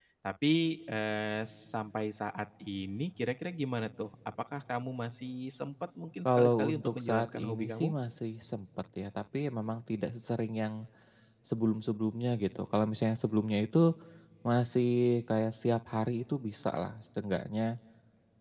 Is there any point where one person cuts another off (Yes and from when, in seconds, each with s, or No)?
Yes, from 6.2 s